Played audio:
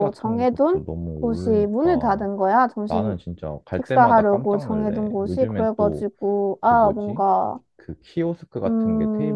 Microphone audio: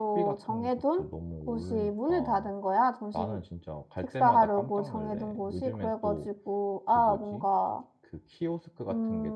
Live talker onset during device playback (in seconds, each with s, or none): none